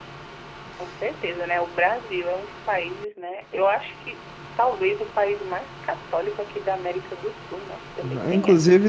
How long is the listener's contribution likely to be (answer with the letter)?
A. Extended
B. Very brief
A